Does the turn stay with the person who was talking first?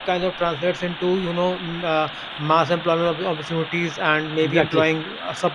Yes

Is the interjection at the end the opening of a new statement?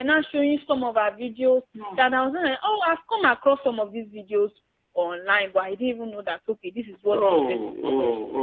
Yes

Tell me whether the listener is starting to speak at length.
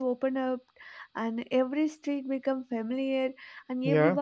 No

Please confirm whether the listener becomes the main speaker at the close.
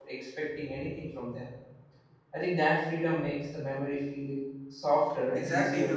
Yes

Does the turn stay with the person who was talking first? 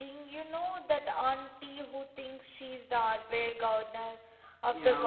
No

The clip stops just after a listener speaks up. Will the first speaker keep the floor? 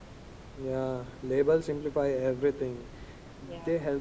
Yes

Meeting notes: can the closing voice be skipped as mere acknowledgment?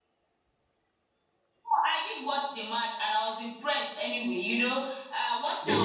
Yes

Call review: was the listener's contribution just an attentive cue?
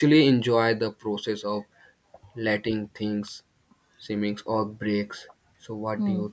No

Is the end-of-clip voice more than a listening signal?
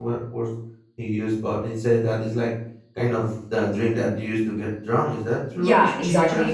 Yes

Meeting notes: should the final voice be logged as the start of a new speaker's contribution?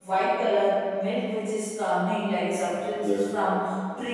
No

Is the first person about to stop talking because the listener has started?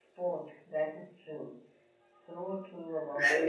Yes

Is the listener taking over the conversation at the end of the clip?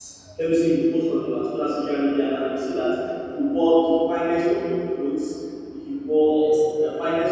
No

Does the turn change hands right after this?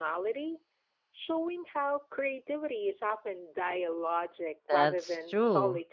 Yes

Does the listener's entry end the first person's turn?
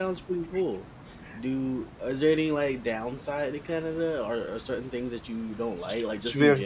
Yes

